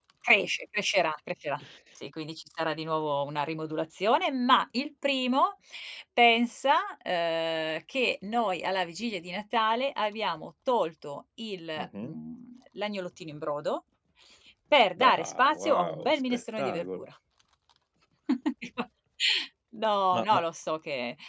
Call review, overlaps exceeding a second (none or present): present